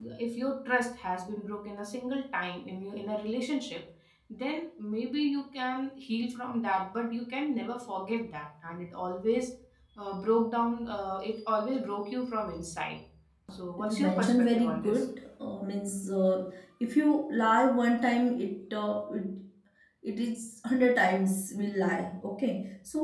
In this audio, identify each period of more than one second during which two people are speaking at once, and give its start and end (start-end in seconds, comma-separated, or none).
13.5-15.0